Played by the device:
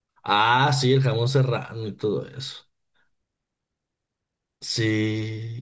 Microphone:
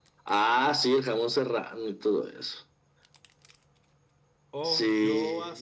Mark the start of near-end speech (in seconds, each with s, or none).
4.6 s